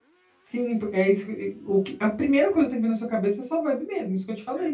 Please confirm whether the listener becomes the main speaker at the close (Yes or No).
No